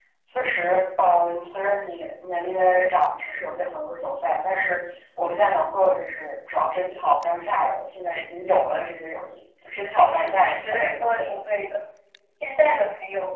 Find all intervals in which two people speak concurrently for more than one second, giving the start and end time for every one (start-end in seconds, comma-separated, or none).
10.0-11.3